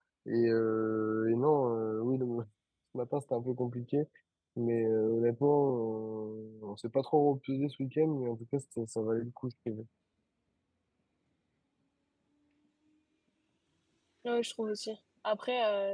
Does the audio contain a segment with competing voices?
No

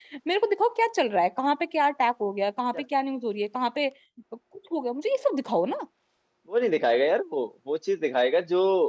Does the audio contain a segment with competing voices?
No

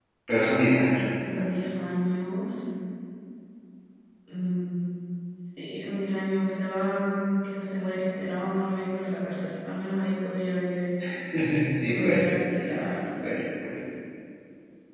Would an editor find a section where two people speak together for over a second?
No

